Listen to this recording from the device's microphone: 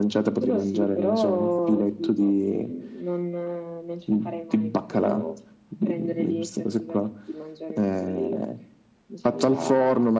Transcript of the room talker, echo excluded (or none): none